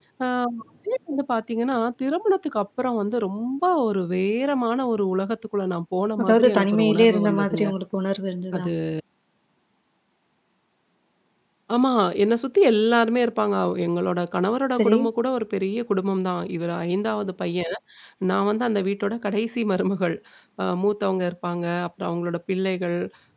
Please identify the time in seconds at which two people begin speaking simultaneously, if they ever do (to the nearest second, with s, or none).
6 s